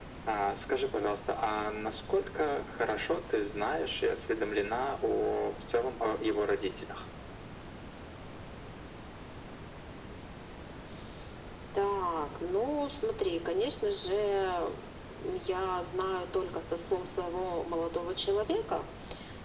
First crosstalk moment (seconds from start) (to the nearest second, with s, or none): none